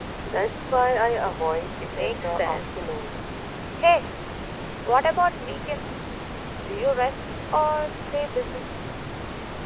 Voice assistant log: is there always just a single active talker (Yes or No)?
No